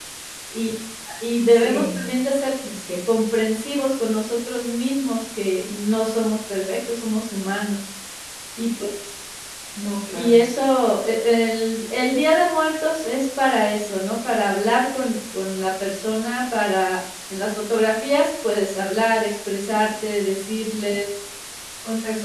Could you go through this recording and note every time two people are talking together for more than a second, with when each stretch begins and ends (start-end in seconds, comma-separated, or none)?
none